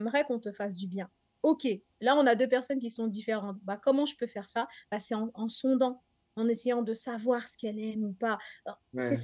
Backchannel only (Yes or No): Yes